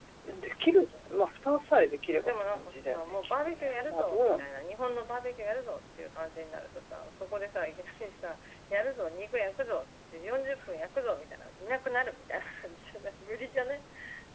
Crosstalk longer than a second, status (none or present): present